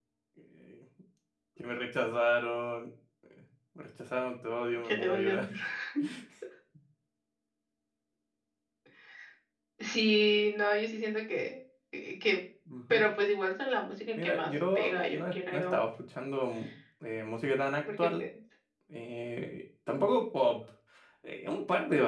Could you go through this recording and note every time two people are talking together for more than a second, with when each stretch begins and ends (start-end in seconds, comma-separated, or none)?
14.2-15.8